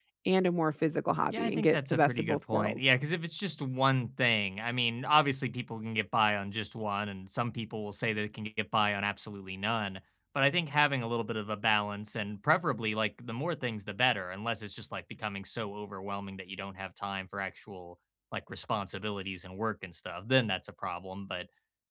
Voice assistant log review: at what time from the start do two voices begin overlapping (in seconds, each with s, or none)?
1.3 s